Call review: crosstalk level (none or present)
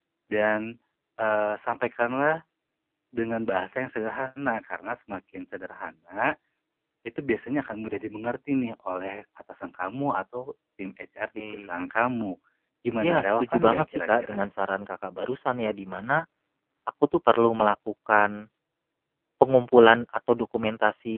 present